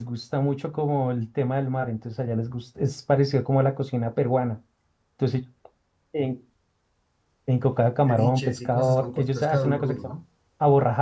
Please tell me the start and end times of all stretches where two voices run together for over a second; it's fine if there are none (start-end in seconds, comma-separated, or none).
8.1-10.1